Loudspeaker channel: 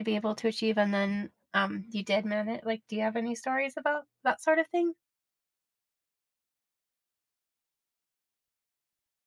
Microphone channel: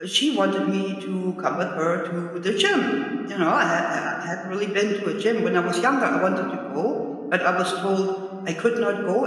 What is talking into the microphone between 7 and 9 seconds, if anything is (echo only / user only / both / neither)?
user only